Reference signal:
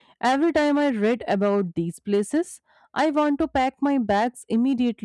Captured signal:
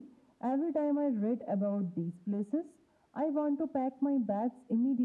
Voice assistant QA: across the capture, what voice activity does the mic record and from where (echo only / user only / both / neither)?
echo only